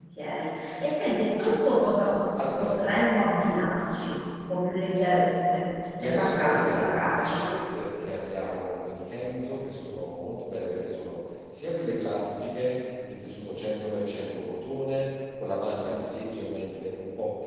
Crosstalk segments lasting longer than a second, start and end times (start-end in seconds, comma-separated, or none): 6.0-7.5